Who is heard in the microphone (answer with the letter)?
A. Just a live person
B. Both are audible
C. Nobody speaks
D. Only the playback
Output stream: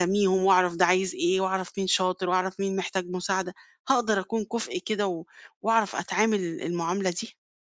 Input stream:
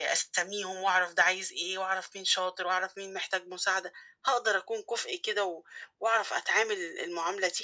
D